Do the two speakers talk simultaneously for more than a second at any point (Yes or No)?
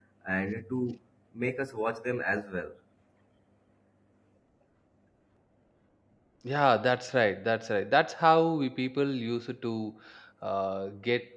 No